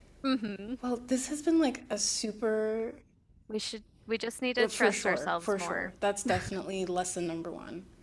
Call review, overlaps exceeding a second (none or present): present